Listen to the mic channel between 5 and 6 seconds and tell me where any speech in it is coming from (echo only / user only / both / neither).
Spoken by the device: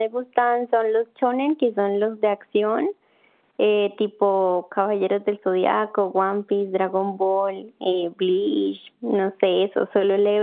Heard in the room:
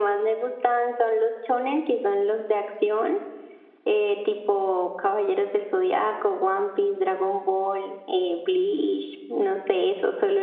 echo only